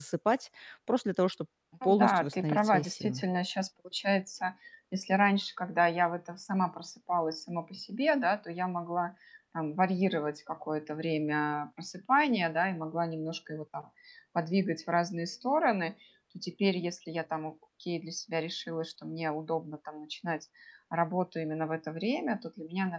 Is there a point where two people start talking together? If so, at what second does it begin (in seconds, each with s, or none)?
1.8 s